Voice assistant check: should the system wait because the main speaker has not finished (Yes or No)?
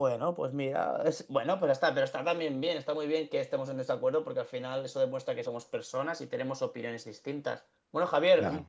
Yes